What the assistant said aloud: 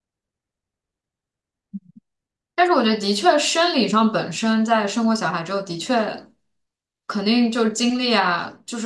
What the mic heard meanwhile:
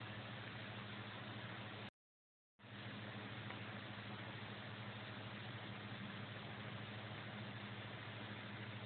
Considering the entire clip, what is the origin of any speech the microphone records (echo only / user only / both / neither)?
neither